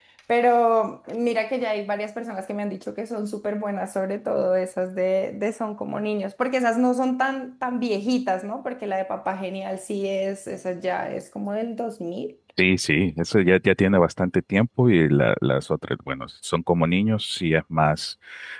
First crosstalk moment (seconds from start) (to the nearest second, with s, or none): none